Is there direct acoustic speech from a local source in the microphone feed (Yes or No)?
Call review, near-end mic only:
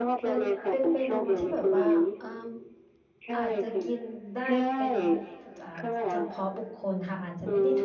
Yes